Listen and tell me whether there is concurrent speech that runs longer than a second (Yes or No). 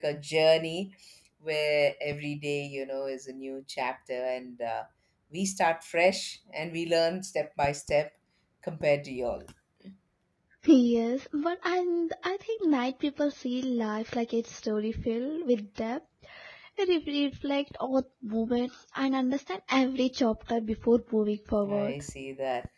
No